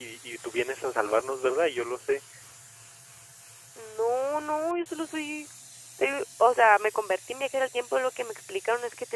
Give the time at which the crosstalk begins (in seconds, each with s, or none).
none